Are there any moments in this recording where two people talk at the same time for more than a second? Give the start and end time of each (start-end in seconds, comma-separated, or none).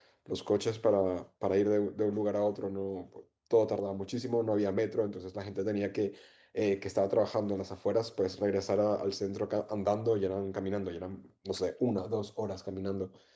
none